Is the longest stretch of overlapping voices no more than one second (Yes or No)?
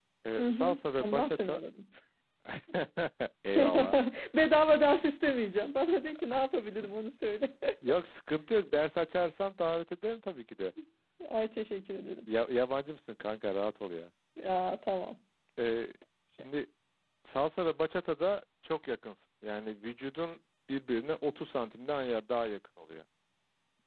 No